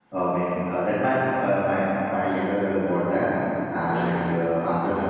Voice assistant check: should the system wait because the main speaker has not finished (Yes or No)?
Yes